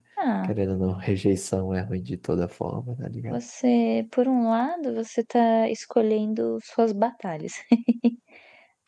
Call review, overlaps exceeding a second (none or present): none